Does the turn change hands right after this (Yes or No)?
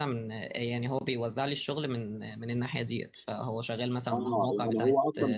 Yes